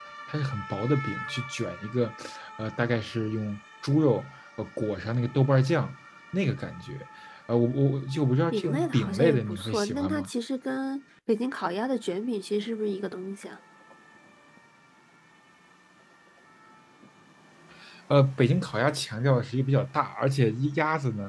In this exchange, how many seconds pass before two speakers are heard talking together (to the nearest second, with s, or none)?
9 s